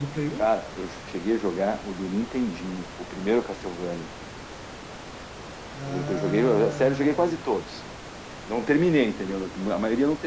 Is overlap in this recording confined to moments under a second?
No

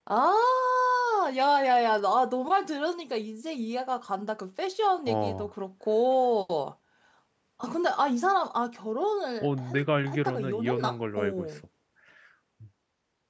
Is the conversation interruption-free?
No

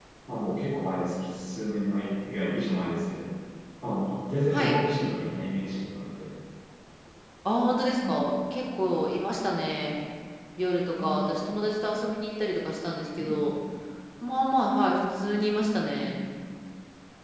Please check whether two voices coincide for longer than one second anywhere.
No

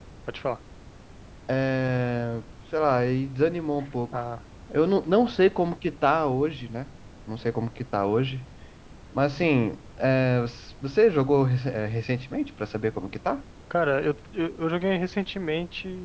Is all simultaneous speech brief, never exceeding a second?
Yes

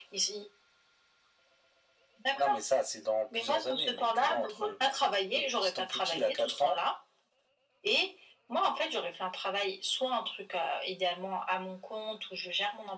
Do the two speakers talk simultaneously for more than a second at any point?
Yes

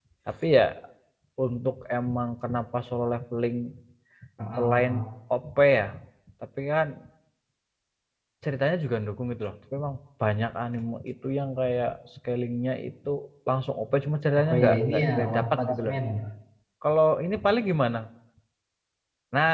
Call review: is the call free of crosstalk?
No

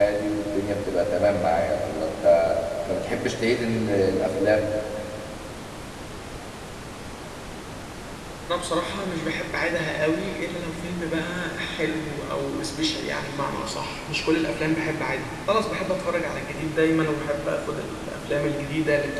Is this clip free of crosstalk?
Yes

